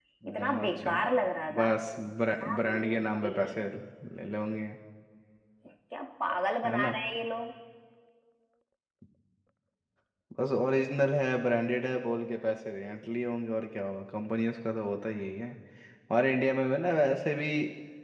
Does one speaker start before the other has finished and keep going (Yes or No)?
Yes